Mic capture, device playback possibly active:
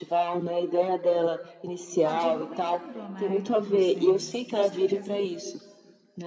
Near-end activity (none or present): present